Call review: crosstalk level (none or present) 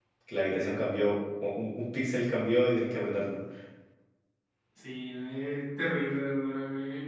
none